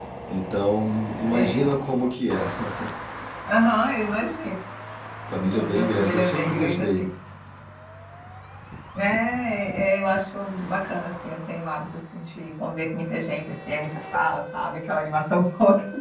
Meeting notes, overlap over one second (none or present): present